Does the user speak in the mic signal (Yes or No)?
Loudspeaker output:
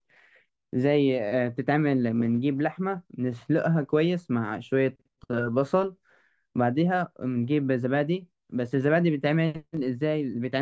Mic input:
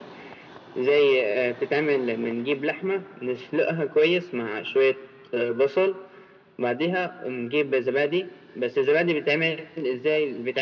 No